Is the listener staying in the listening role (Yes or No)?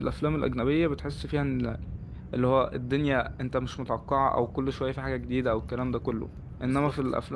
Yes